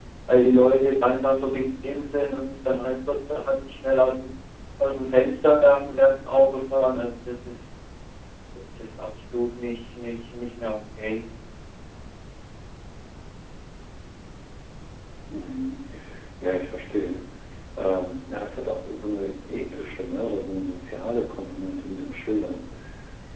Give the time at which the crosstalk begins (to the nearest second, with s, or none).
none